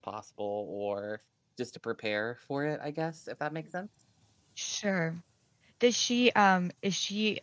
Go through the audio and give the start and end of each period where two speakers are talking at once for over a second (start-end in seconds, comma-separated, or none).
none